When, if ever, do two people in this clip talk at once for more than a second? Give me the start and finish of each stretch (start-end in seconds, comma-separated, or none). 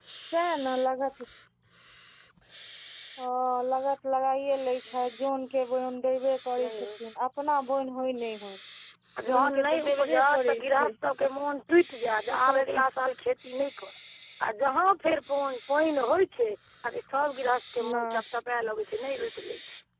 9.3-10.9